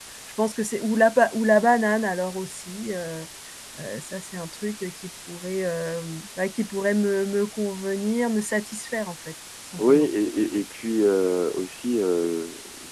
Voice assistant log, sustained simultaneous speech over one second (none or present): none